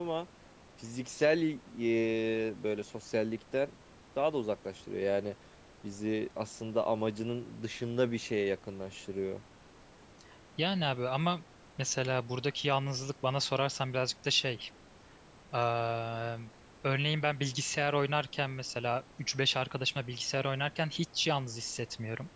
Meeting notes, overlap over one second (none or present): none